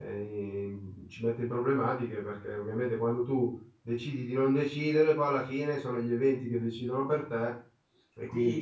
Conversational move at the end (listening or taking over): taking over